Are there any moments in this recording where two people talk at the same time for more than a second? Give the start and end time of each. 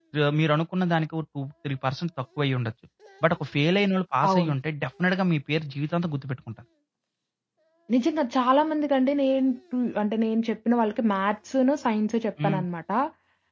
none

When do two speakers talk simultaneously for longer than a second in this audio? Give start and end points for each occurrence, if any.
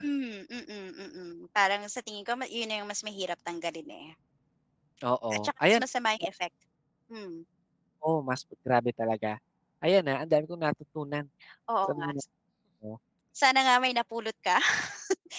none

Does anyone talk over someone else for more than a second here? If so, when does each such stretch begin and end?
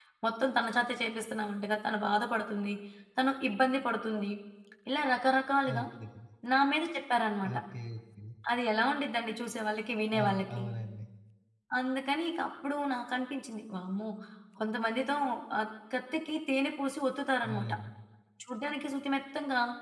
none

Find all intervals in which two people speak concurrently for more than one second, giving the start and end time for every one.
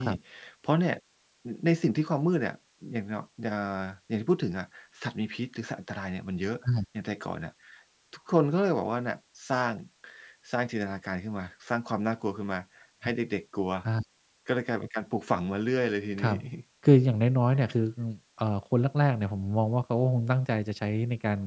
none

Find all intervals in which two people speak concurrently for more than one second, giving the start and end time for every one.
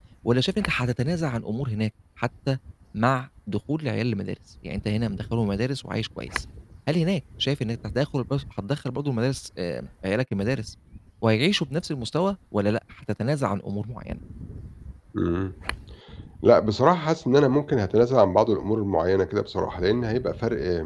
none

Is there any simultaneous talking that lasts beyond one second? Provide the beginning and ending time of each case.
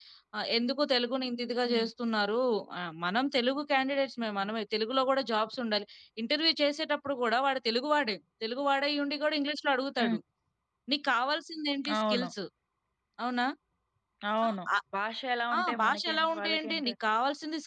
15.6-16.9

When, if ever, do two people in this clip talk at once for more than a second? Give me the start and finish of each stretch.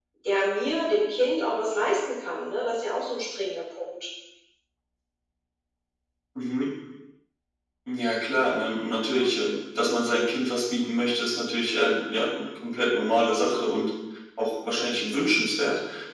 none

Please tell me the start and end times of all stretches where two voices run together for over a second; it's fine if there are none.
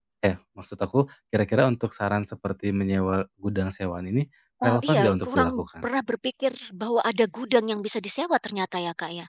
4.6-5.8

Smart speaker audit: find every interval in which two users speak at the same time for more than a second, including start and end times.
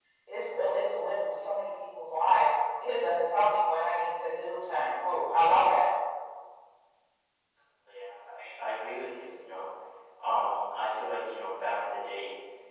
none

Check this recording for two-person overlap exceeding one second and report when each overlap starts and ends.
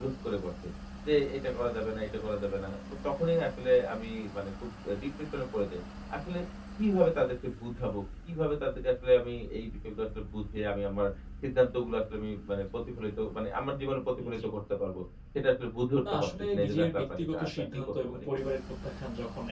16.1-18.4

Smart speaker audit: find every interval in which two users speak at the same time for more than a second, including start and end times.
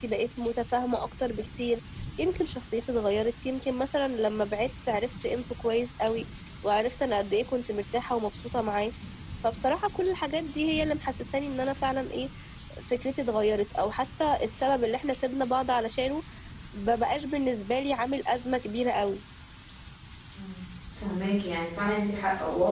none

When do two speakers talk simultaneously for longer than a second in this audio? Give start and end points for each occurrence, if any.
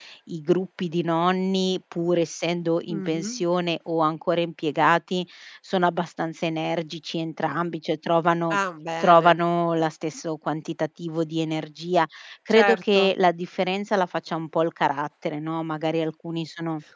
none

